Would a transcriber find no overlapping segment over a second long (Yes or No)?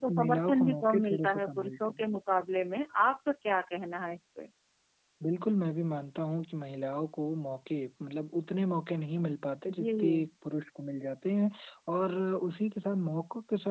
No